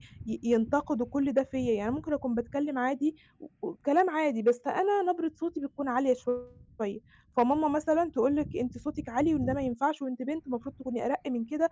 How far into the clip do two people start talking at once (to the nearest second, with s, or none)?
none